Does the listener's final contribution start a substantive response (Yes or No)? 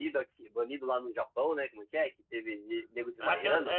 Yes